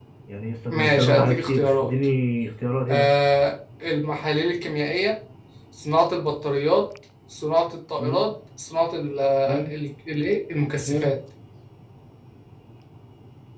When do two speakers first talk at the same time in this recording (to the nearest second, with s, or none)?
1 s